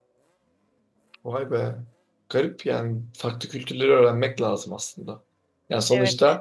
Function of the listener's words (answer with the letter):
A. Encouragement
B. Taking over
A